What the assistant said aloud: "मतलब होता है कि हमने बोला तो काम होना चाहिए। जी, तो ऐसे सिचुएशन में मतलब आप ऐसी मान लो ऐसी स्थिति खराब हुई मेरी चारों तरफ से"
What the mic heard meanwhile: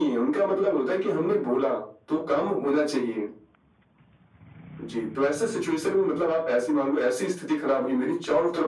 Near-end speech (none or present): none